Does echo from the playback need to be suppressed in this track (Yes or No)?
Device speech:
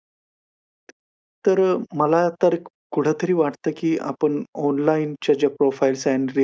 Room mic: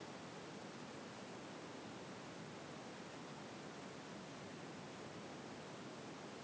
No